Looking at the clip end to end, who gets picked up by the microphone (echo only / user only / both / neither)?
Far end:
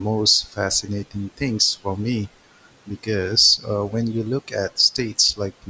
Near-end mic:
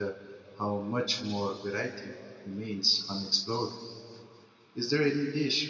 user only